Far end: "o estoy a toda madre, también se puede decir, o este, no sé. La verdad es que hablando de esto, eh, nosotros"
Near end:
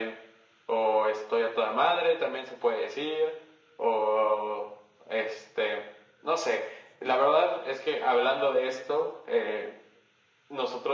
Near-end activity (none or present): none